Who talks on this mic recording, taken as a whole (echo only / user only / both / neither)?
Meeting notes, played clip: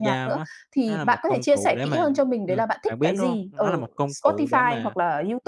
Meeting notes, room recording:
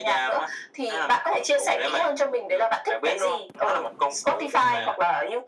both